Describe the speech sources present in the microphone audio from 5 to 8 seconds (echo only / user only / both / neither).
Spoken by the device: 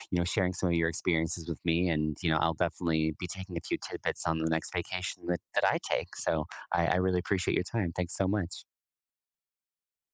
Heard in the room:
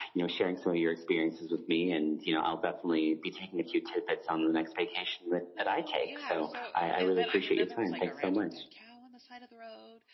both